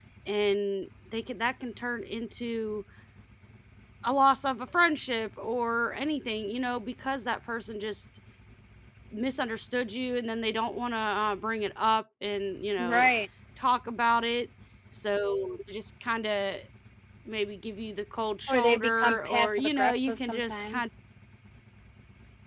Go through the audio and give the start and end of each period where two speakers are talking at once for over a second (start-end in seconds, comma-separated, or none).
18.5-20.8